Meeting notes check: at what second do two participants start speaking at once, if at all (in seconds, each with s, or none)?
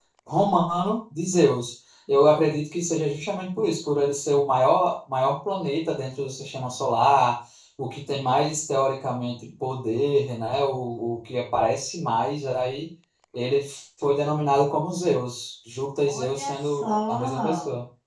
16.0 s